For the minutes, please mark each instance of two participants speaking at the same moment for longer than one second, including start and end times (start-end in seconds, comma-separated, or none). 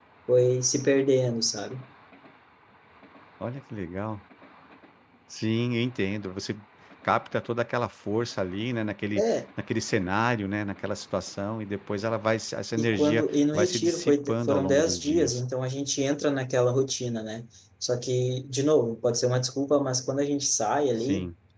12.8-15.4